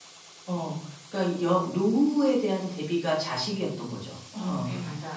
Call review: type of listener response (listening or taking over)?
taking over